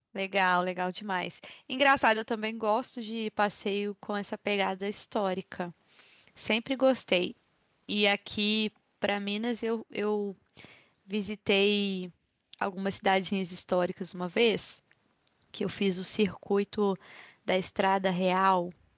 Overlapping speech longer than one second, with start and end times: none

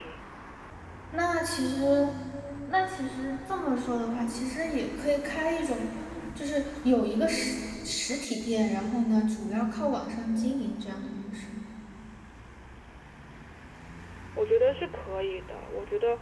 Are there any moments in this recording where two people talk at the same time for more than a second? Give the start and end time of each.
none

